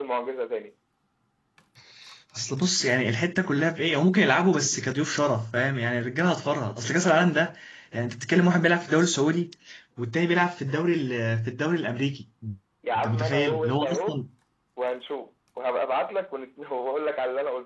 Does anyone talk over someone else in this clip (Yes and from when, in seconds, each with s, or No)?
Yes, from 13.0 s